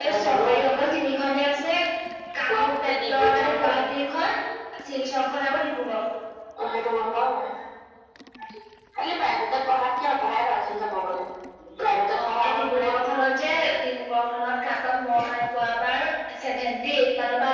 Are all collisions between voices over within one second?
No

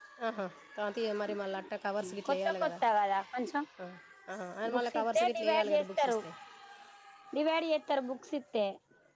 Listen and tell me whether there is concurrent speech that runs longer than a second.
Yes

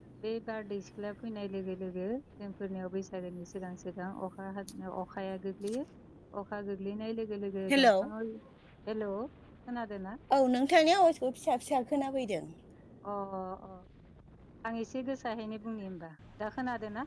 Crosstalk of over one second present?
No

